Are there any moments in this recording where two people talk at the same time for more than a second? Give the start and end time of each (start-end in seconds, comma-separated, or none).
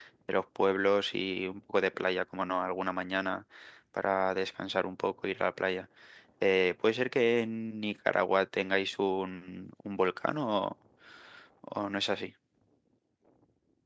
none